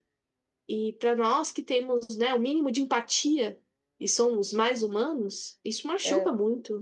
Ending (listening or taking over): listening